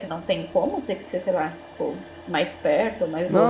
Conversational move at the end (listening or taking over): taking over